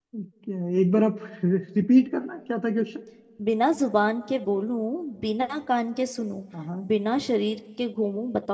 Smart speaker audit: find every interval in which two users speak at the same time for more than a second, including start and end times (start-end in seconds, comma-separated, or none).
none